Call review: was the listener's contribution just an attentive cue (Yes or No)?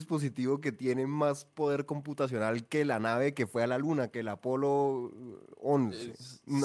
No